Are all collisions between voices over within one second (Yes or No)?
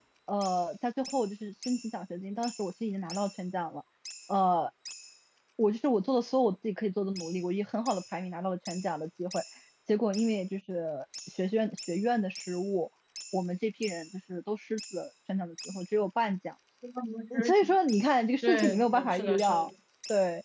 No